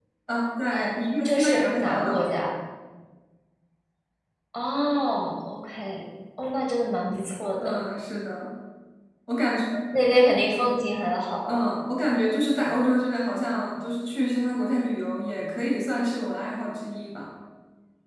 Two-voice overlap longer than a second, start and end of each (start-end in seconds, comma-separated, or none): 0.7-2.3